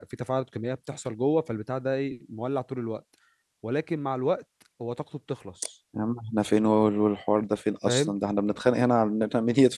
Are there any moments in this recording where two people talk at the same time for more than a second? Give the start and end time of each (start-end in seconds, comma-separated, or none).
none